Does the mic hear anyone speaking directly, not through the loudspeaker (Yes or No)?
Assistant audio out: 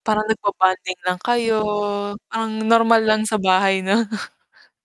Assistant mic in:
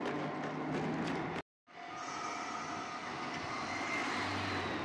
No